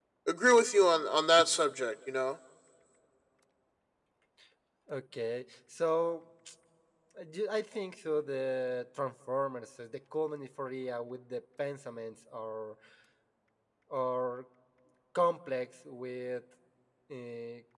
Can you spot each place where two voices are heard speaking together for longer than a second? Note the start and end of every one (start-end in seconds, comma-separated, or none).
none